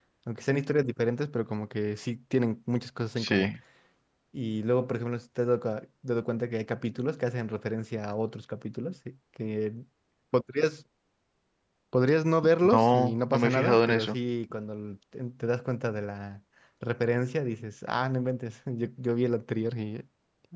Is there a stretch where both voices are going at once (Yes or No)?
Yes